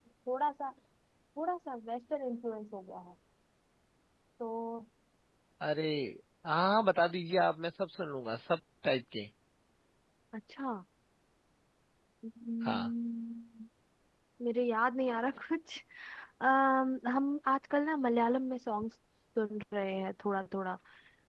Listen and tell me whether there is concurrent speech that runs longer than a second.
No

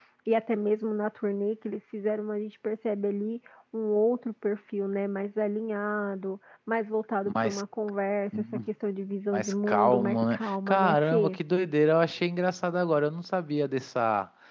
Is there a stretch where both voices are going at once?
Yes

